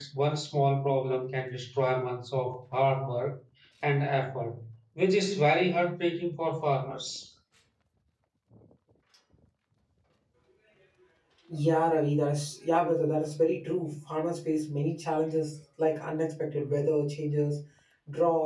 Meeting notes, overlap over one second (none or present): none